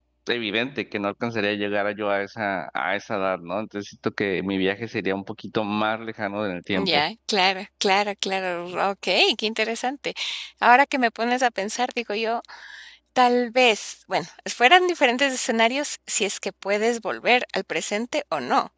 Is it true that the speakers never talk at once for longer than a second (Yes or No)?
Yes